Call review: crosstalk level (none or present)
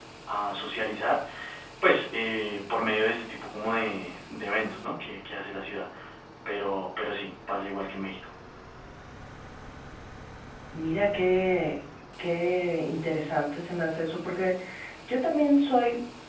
none